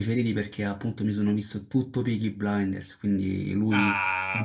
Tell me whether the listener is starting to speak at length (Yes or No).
Yes